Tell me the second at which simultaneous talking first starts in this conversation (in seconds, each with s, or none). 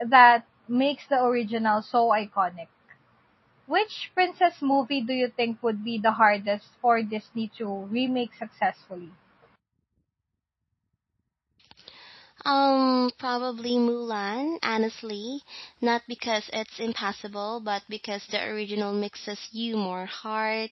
none